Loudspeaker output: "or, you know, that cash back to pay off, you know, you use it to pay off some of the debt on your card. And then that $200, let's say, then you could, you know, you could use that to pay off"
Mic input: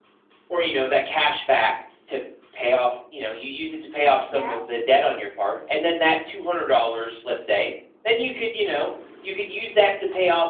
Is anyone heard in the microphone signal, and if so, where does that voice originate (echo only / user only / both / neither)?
both